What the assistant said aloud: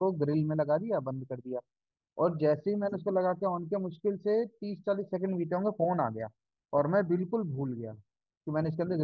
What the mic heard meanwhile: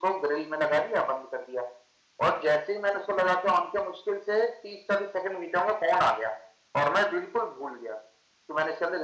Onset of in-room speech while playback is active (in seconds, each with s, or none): none